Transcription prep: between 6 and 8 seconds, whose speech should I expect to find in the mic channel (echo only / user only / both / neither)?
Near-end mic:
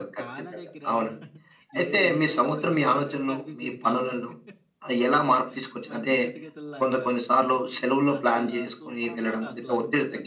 both